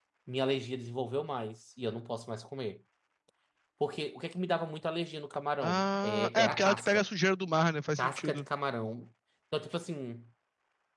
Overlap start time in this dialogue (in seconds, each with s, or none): 5.6 s